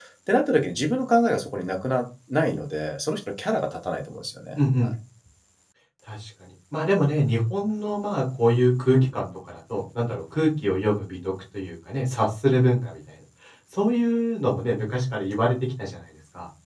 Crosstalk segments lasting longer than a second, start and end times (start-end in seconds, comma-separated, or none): none